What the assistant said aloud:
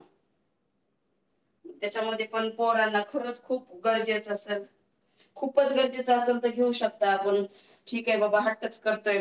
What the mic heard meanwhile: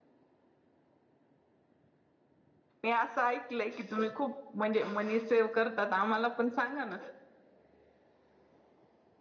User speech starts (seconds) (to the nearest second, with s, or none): 3 s